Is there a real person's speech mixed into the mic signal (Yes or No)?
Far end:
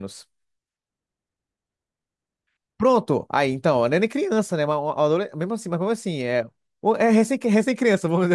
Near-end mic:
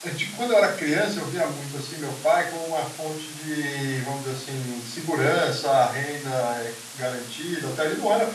Yes